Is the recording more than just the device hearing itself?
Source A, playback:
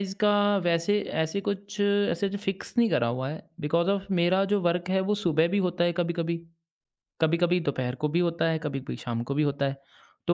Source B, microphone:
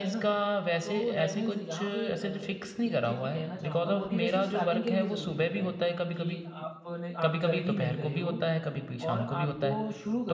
Yes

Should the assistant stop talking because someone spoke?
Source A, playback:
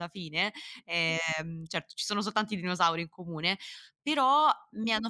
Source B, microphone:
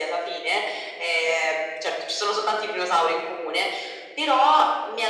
No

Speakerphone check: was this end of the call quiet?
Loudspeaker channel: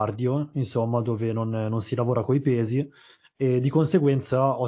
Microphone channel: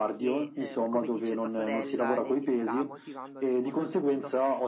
No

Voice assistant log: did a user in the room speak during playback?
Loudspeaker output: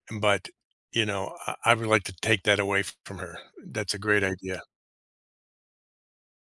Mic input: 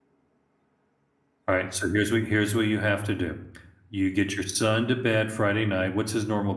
Yes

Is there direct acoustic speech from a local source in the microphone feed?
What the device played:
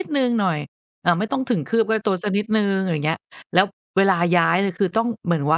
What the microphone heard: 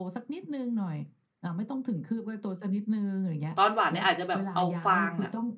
Yes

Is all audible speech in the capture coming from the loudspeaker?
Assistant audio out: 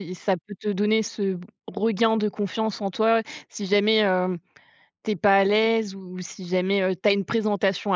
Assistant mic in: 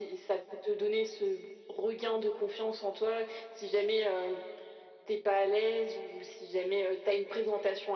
Yes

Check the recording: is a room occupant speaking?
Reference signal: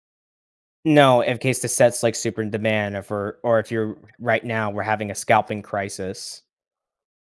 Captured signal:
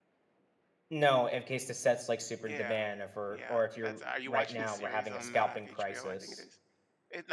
Yes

